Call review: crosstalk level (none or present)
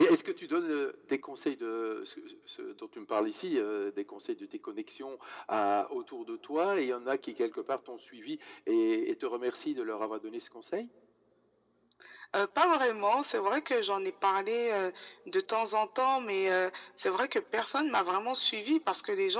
none